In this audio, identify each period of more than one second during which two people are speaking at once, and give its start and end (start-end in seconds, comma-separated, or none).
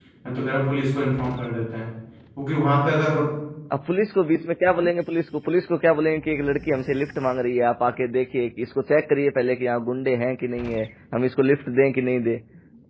none